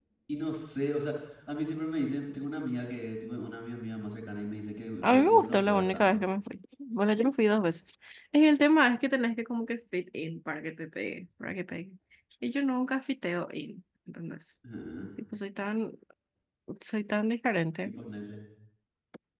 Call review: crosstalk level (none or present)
present